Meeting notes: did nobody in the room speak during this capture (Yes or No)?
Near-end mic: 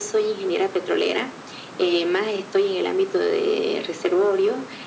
Yes